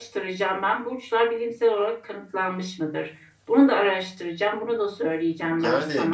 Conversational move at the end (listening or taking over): taking over